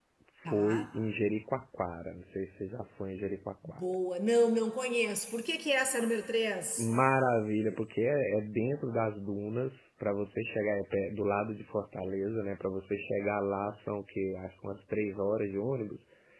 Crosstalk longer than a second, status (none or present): none